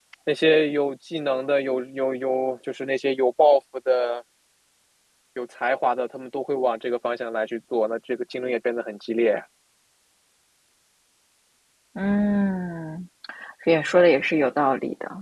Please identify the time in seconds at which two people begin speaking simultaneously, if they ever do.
none

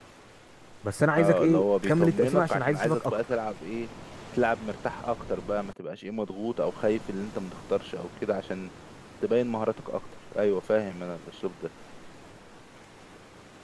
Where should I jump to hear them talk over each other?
1.2 s

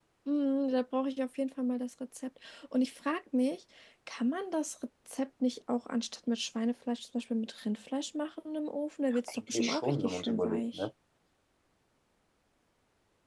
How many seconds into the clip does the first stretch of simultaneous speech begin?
9.1 s

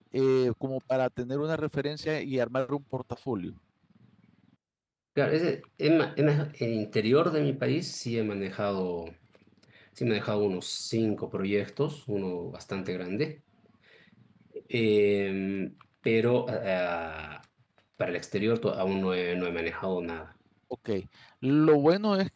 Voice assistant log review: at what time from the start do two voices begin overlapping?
none

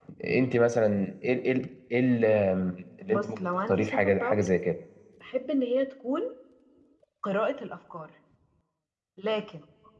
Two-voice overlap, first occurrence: 3.1 s

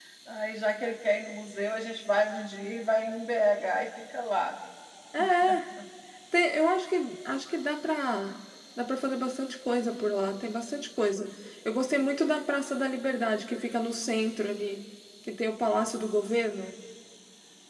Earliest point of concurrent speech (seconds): none

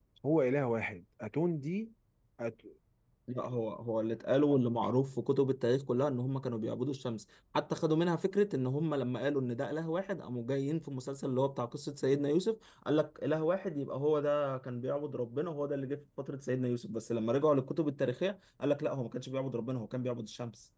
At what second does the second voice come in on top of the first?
none

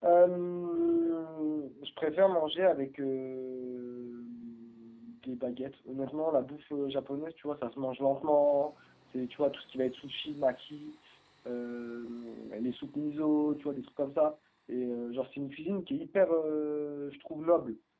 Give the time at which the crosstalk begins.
none

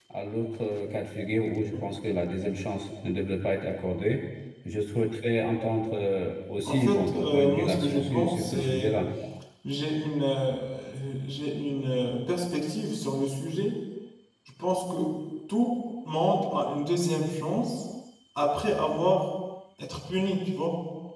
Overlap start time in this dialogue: 6.7 s

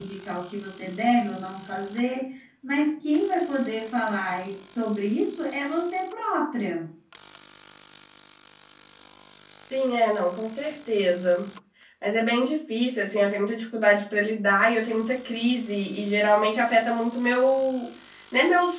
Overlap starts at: none

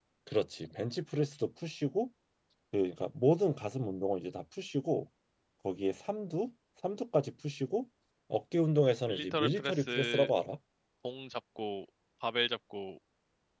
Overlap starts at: 9.1 s

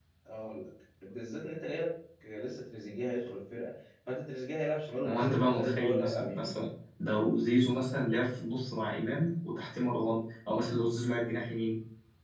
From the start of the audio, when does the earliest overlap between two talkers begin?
5.0 s

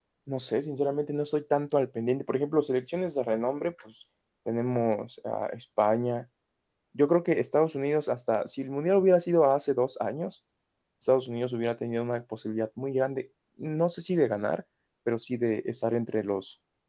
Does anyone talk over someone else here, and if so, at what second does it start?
none

